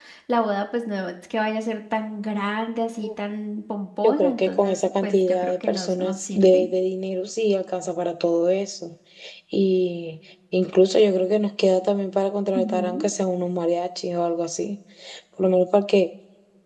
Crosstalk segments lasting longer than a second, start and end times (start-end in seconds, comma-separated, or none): 4.0-6.7